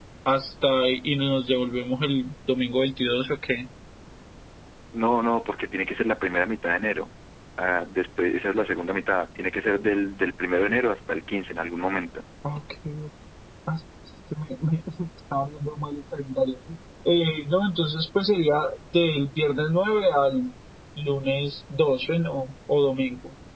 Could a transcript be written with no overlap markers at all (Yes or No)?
Yes